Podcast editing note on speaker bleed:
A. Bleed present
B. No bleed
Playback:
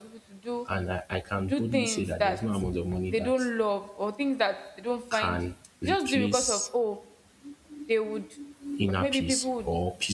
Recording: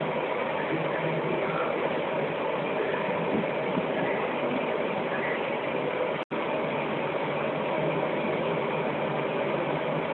B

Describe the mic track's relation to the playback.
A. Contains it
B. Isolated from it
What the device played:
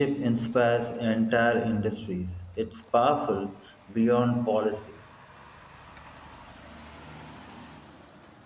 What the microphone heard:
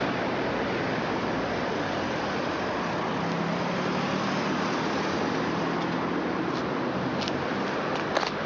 B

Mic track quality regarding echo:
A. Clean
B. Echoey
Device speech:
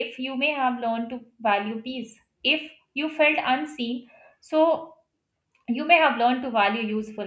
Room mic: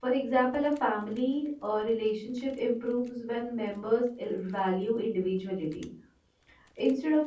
A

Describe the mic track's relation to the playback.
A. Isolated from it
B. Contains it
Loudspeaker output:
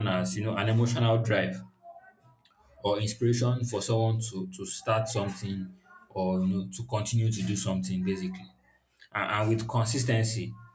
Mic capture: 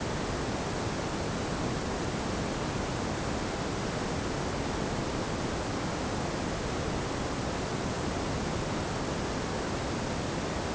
A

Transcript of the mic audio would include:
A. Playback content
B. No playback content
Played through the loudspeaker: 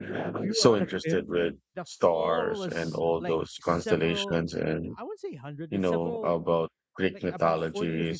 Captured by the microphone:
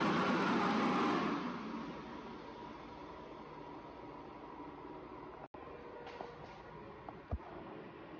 B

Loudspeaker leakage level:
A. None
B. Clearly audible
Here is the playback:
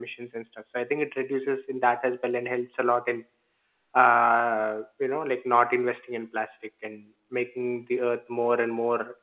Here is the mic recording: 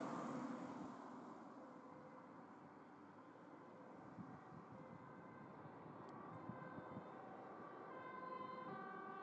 A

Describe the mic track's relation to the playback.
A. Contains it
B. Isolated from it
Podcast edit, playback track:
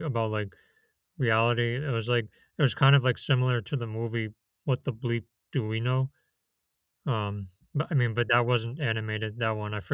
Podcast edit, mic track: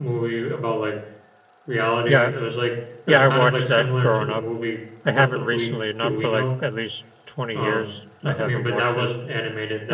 A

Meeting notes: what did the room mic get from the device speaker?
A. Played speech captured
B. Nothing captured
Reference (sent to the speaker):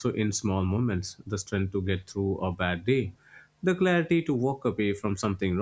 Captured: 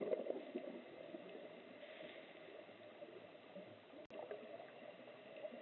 B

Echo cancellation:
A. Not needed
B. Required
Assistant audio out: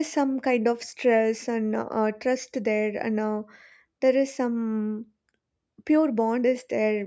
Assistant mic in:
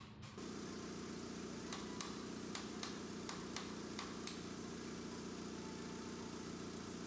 A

